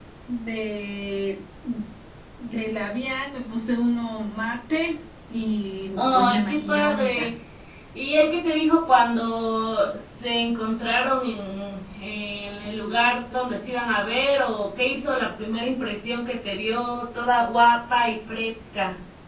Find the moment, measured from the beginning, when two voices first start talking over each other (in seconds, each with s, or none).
6.0 s